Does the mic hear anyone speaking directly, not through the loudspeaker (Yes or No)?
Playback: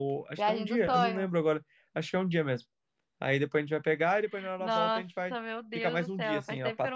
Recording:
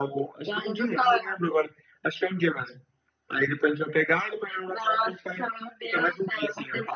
No